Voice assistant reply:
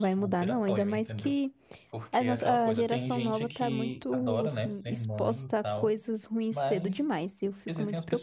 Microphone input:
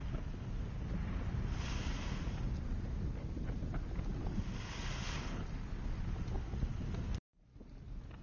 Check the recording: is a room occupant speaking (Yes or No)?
No